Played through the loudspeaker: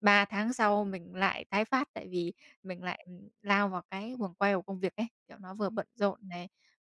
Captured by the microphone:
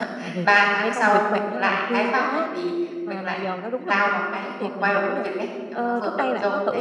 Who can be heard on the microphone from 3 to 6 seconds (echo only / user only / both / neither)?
both